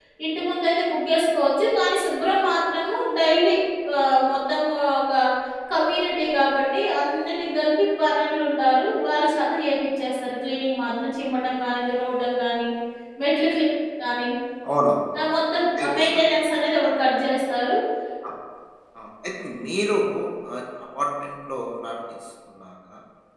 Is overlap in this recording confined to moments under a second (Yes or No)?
Yes